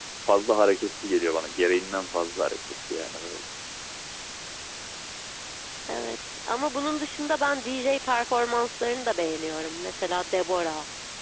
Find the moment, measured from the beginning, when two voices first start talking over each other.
none

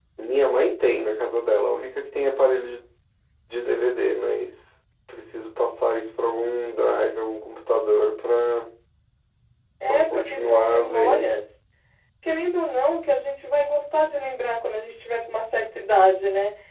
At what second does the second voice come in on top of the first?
9.9 s

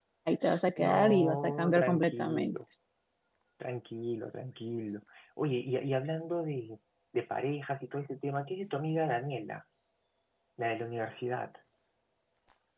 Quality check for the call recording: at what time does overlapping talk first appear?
0.8 s

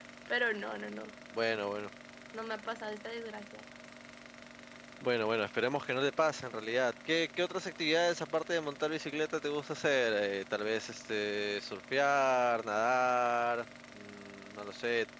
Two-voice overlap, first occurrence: none

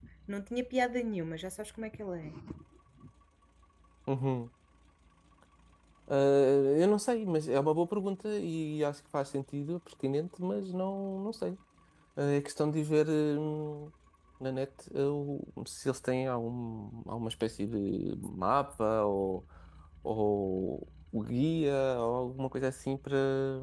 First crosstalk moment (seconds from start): none

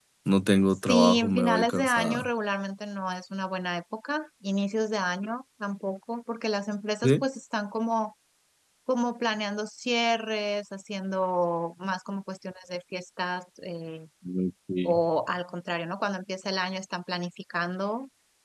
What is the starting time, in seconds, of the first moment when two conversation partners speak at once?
0.9 s

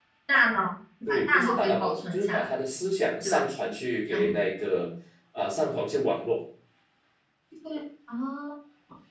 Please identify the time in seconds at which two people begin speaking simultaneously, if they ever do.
1.1 s

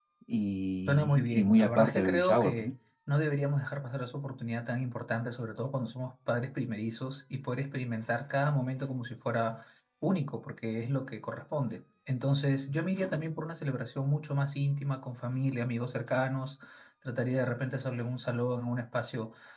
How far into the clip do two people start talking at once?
0.9 s

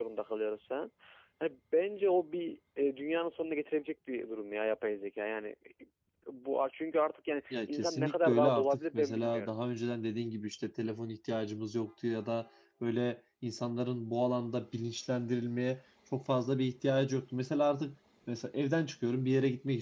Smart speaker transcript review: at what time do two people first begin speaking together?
7.5 s

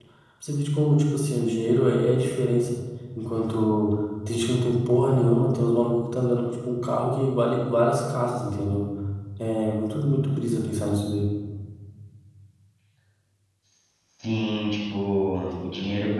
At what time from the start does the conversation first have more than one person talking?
none

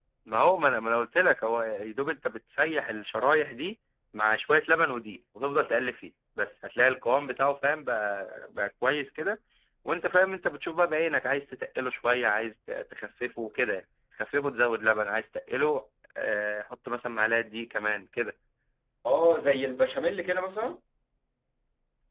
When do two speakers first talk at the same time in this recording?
none

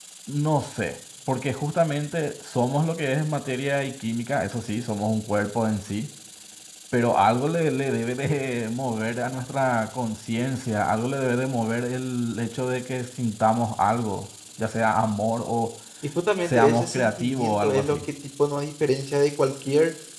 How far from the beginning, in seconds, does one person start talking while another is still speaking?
16.4 s

